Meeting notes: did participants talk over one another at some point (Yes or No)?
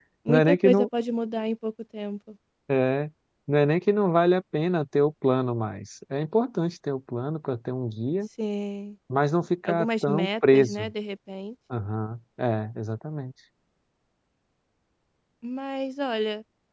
Yes